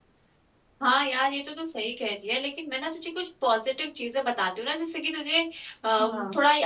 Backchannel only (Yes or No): Yes